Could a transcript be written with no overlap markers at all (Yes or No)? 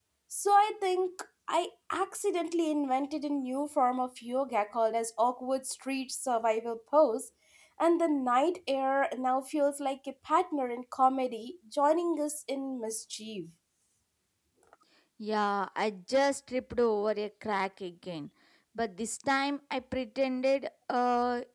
Yes